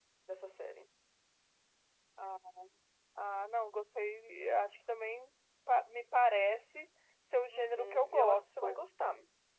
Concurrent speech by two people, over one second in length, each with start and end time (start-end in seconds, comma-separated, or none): 7.5-8.8